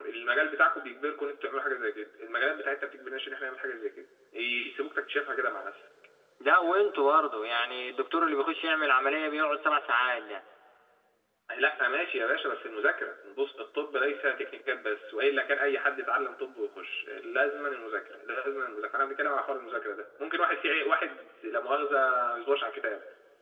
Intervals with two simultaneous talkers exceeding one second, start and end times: none

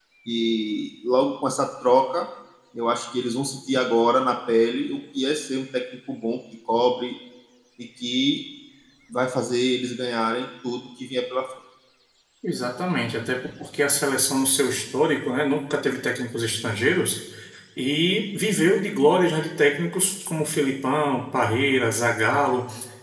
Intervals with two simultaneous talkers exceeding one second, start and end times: none

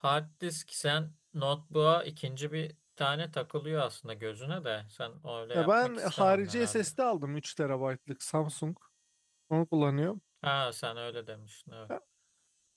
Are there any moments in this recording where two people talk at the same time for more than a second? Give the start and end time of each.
5.5-6.9

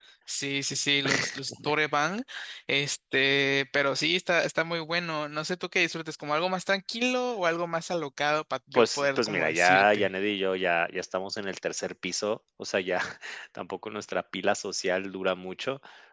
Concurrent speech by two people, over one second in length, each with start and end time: 8.7-10.1

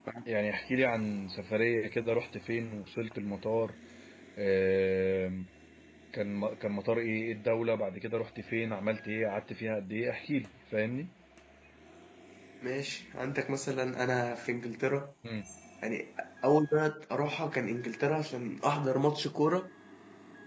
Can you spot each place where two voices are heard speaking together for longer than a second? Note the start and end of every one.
none

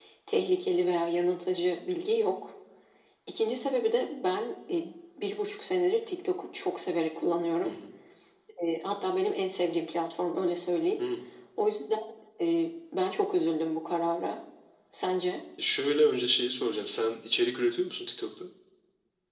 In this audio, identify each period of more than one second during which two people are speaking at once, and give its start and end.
none

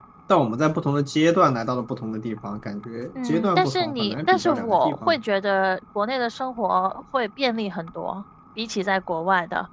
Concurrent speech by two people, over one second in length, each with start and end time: 3.1-5.2

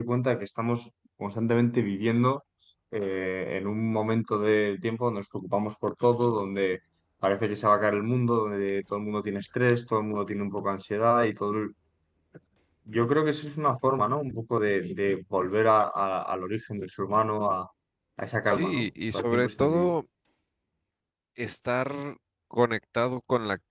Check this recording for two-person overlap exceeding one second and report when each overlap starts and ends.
18.4-19.9

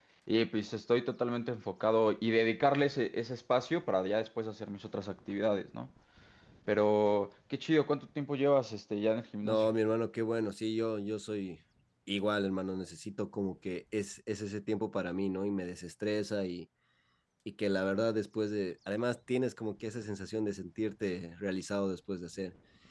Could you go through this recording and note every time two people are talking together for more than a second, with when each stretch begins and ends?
none

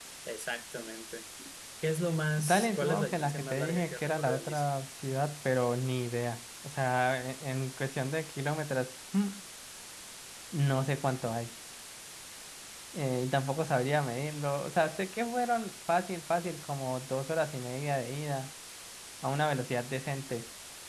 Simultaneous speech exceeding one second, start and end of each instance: 2.4-4.6

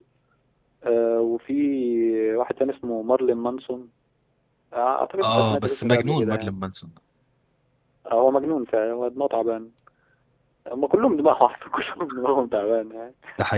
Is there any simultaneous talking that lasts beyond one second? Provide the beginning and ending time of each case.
5.2-6.5

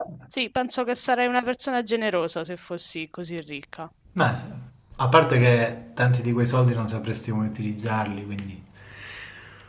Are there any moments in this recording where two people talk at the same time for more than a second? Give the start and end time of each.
none

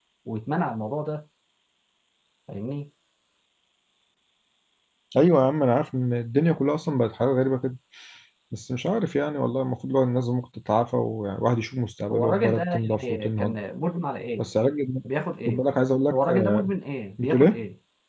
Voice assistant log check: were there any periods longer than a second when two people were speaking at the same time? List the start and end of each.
12.1-13.6

